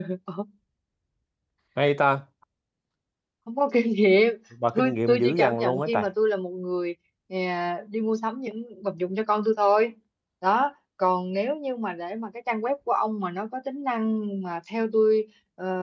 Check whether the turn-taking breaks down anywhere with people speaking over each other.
Yes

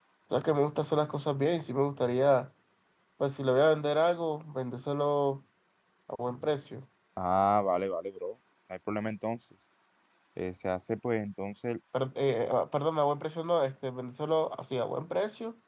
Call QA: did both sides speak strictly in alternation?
Yes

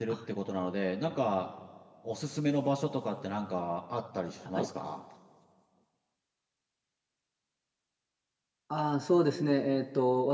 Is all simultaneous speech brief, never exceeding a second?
Yes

